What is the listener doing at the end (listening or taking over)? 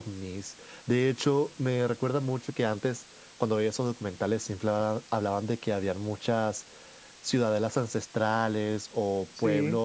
listening